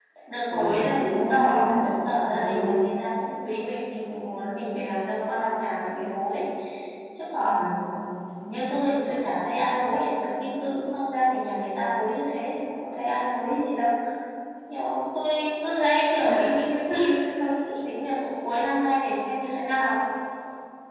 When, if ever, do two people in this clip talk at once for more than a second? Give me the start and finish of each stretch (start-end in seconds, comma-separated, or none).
0.5-2.7